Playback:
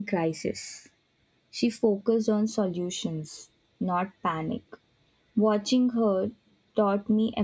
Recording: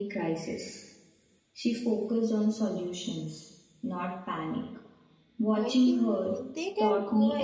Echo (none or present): present